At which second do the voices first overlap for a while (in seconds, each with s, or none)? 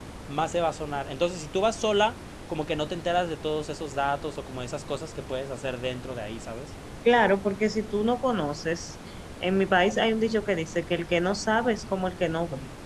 none